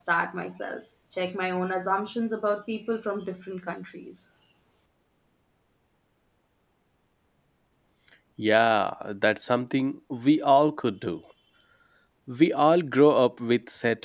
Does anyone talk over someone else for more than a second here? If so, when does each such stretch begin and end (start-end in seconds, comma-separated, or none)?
none